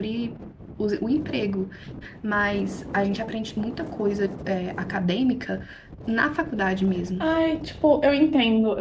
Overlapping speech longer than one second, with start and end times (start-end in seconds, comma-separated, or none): none